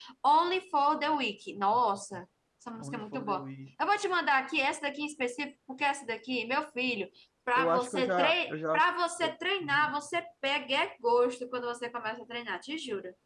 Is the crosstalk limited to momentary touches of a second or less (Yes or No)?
No